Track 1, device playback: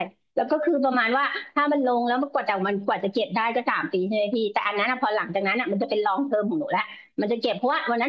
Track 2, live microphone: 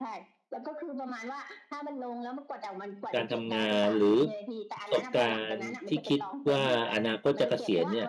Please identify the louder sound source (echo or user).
user